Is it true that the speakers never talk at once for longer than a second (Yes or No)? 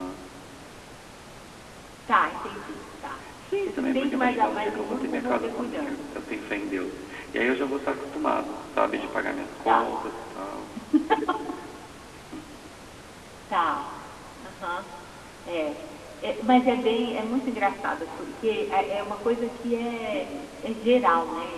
No